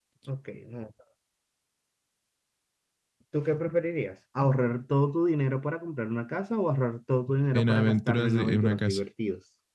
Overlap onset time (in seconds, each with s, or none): 7.5 s